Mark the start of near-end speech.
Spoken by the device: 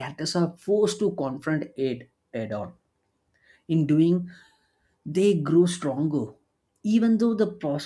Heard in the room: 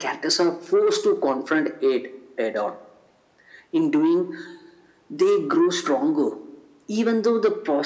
none

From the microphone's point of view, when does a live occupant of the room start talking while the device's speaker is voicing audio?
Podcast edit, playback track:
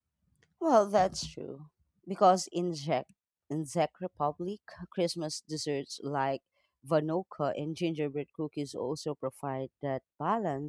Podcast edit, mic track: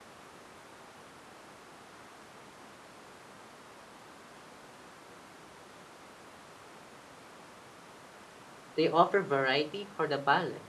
9 s

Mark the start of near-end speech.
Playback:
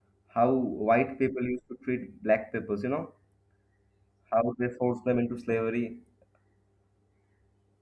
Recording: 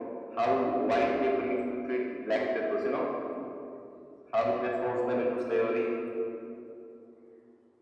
none

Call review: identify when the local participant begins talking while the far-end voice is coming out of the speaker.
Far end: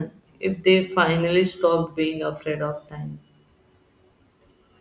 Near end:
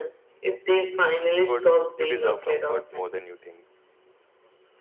1 s

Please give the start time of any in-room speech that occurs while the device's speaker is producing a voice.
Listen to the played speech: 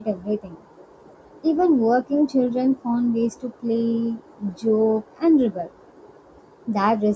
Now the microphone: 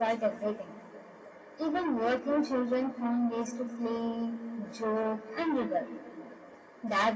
none

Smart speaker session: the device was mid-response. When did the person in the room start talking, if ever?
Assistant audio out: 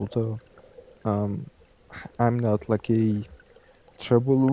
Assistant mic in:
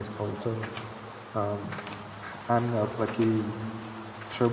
none

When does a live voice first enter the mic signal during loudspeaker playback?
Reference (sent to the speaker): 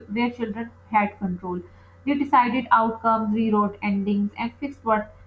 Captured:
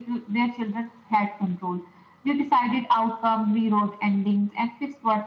none

